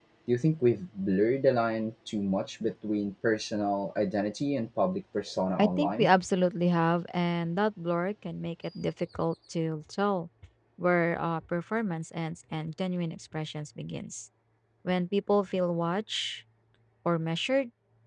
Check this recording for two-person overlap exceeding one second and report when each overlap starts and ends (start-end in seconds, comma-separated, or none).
none